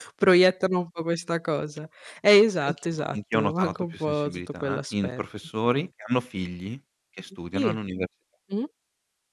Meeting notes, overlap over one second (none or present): present